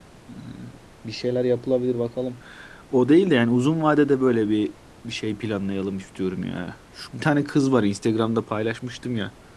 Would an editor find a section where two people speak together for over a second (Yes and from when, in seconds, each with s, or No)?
No